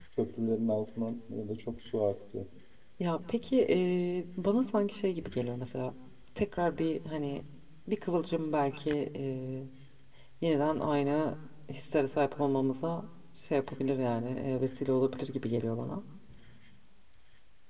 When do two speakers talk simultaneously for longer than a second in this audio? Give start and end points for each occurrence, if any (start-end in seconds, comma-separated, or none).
none